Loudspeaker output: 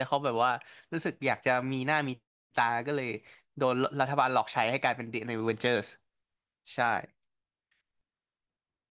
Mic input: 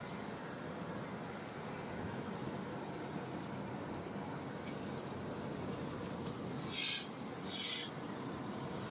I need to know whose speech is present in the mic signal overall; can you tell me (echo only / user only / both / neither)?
neither